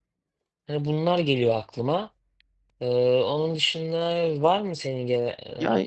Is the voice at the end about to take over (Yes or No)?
Yes